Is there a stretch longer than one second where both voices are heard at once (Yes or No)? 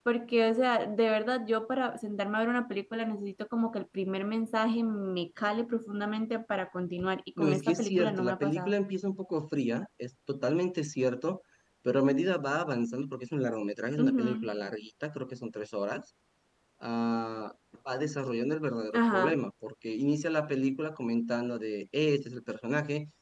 Yes